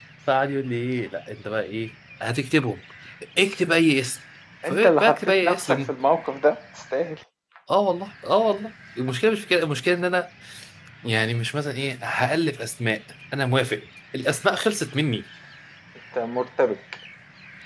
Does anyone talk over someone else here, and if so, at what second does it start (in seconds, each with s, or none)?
4.6 s